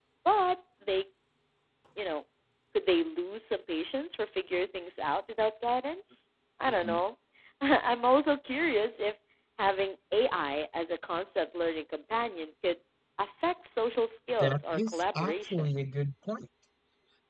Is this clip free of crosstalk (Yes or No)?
No